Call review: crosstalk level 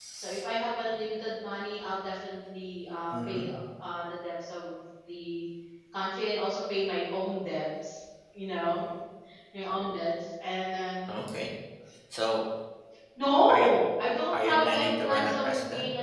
present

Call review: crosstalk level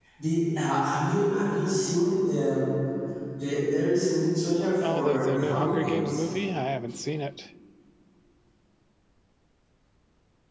present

